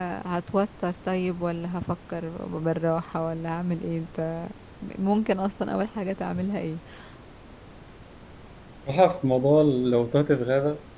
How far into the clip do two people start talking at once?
none

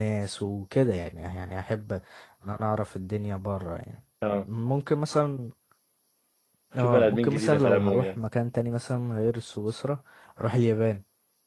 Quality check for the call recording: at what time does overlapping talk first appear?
7 s

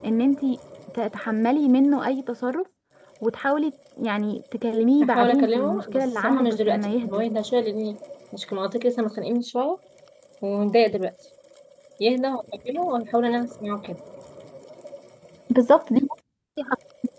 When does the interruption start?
5 s

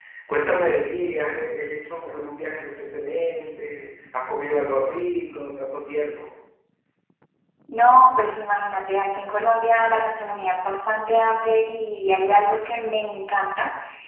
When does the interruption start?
none

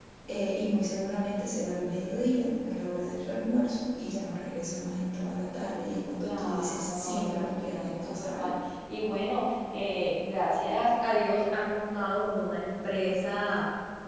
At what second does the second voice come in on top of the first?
6 s

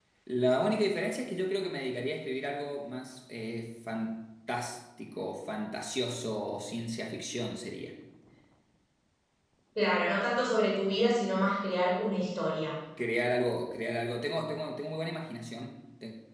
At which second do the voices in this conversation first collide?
none

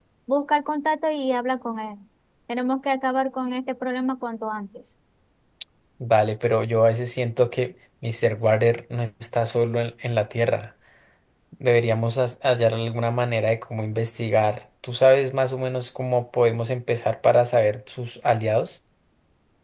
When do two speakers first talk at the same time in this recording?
none

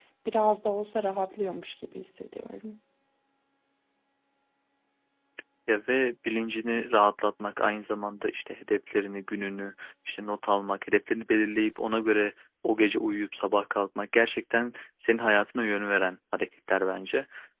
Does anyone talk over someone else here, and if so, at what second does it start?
none

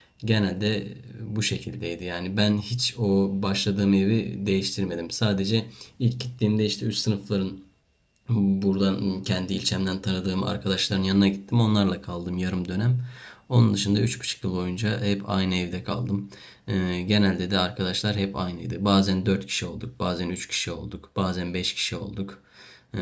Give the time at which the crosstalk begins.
none

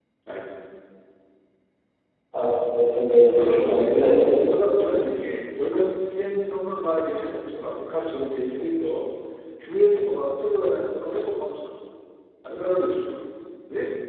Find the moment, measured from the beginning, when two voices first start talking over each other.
3 s

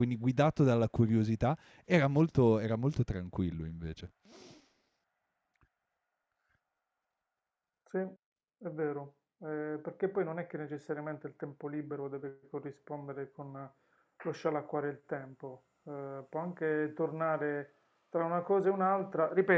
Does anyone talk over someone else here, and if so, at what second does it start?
none

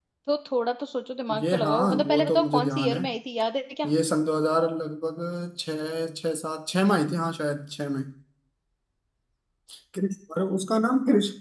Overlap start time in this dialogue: 1 s

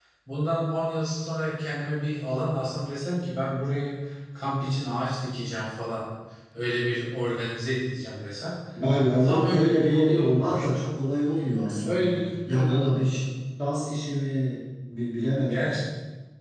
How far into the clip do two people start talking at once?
9 s

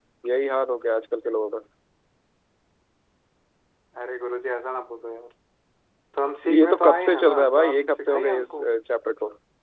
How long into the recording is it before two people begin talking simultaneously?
7 s

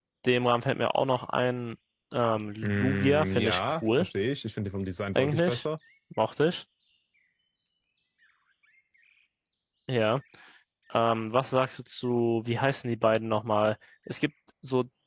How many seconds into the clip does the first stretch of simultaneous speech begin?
3 s

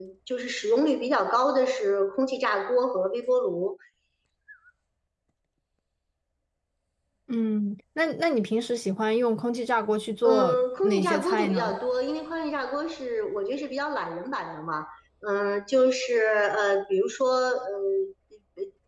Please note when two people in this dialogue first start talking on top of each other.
10 s

